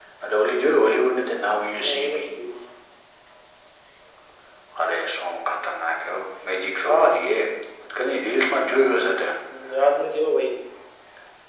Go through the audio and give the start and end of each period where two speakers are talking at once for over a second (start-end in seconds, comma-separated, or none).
none